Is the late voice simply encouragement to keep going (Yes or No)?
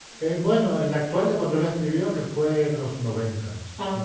Yes